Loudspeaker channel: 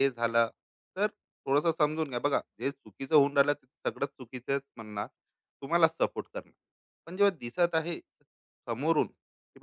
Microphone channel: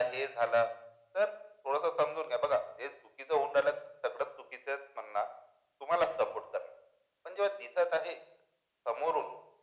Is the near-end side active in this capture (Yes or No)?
No